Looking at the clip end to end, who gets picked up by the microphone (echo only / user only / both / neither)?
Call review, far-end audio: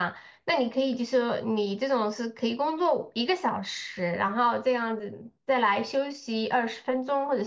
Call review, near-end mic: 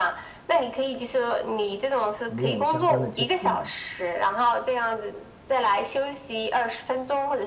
both